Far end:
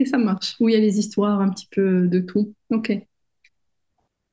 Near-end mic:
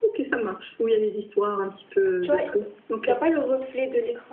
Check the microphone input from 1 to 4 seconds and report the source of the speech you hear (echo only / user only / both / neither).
both